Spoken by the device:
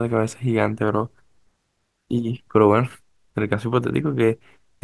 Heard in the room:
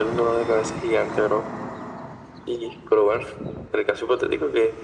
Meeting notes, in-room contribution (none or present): none